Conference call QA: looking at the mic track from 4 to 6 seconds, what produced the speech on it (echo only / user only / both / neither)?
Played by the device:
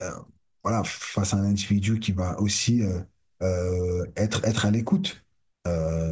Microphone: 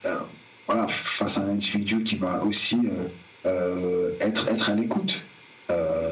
echo only